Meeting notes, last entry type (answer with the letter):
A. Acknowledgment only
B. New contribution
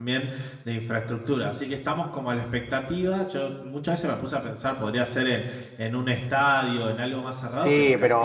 B